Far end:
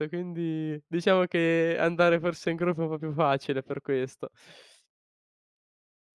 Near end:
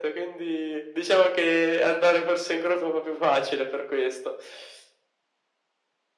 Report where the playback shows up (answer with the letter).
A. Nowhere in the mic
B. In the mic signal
B